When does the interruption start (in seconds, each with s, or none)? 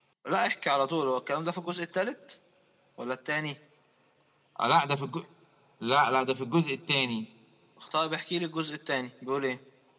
none